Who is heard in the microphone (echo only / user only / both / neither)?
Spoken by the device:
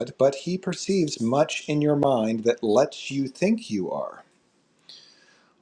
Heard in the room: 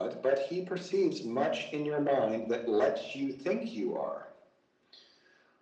echo only